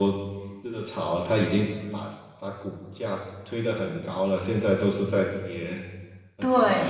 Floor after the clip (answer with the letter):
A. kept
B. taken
B